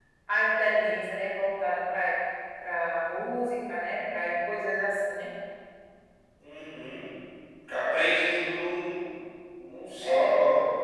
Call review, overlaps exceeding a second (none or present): none